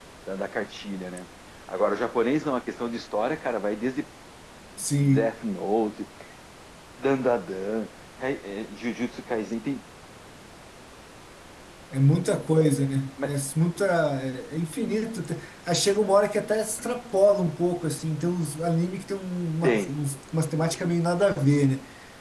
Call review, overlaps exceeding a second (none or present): none